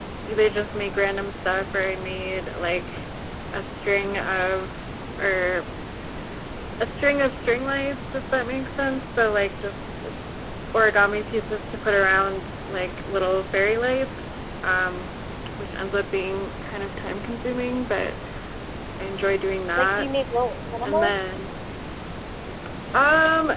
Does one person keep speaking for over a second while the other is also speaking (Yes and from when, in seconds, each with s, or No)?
No